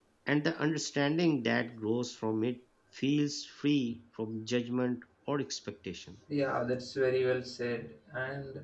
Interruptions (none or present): none